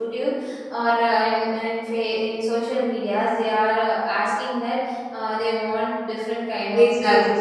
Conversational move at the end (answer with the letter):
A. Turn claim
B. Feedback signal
A